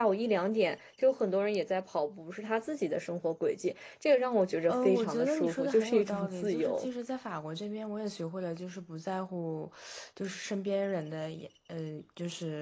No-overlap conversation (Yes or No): No